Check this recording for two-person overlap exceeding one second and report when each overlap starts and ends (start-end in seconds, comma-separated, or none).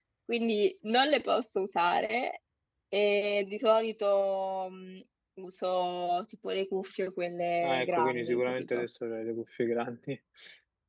7.6-8.8